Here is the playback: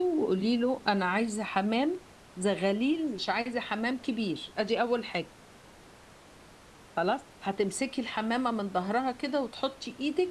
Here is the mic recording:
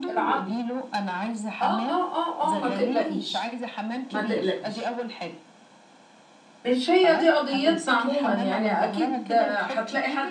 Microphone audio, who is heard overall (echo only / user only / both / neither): both